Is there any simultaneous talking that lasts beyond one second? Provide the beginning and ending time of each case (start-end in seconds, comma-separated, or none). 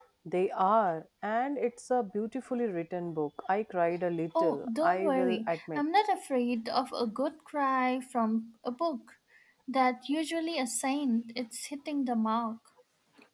4.4-5.8